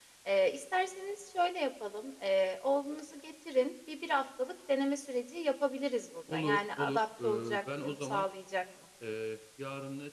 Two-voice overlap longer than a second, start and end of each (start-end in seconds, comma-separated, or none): 6.3-8.2